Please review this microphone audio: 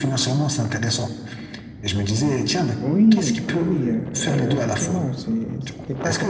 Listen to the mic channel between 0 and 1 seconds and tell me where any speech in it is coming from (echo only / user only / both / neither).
echo only